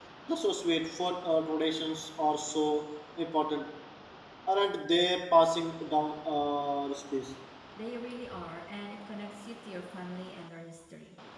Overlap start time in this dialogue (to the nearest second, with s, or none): none